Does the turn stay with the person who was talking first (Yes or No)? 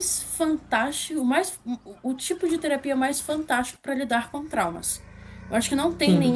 Yes